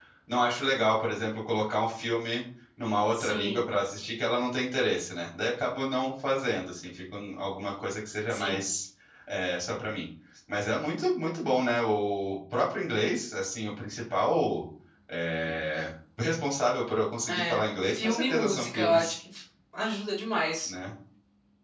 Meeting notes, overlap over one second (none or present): present